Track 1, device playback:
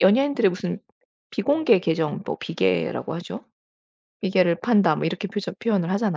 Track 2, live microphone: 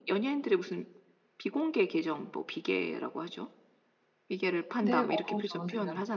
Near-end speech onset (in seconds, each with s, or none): 4.8 s